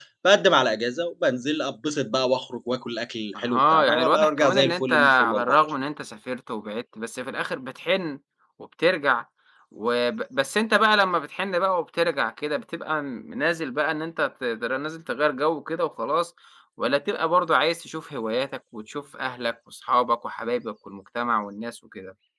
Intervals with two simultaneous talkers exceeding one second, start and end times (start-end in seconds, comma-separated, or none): 3.4-5.6